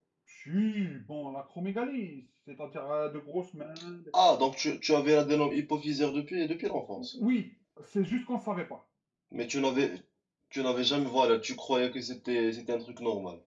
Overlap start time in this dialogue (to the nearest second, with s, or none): none